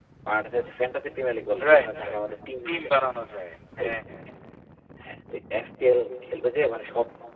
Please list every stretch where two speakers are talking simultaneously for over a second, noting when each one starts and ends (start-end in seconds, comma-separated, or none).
none